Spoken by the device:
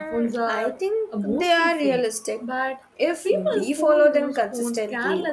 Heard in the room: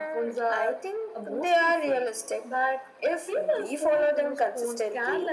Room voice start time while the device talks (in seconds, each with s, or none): none